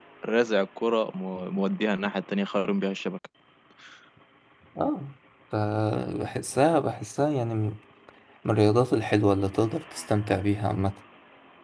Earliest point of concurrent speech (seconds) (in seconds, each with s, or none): none